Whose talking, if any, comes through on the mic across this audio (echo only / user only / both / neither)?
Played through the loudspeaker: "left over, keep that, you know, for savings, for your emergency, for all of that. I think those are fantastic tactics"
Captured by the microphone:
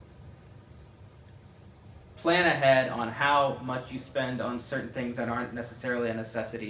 user only